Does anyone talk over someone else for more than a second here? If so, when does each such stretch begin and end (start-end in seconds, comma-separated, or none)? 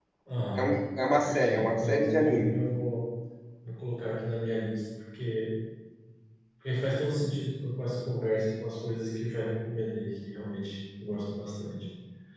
1.2-2.5